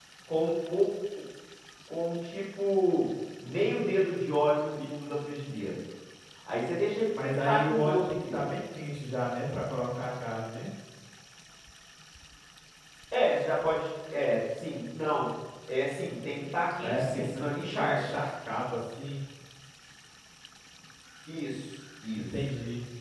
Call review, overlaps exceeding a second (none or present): present